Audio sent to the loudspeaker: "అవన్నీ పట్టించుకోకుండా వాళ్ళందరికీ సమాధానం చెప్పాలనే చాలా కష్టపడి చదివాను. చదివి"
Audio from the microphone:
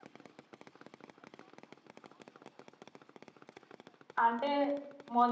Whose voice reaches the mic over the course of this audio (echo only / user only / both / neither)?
user only